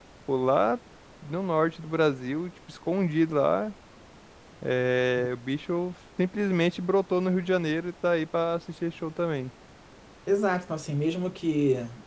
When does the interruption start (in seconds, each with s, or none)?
none